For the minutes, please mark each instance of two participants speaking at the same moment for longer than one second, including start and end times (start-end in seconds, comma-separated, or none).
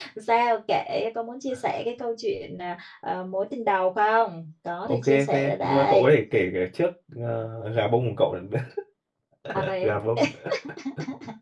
4.9-6.1